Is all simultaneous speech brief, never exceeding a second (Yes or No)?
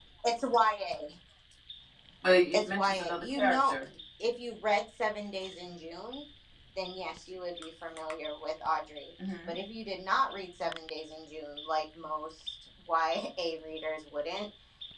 No